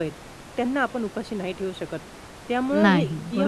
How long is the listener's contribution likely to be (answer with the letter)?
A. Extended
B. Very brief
B